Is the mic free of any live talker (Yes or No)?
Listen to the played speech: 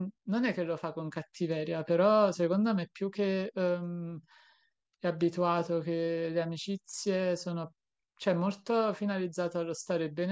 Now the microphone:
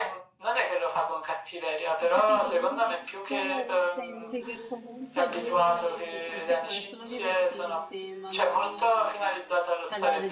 No